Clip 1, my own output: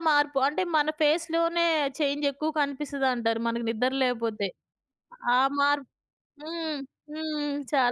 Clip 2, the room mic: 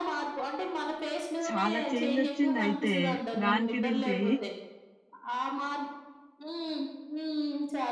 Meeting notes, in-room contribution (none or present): present